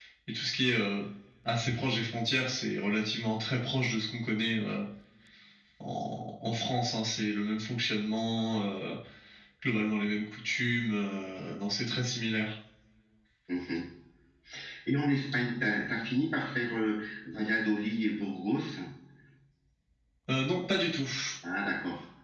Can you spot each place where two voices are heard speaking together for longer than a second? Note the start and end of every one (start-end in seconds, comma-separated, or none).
none